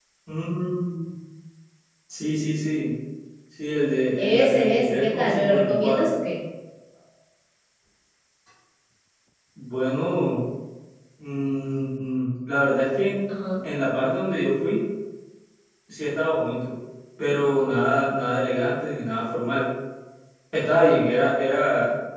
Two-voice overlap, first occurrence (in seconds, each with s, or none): 4.2 s